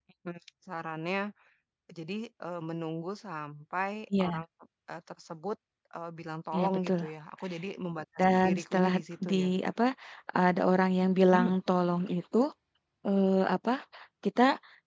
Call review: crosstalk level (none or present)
present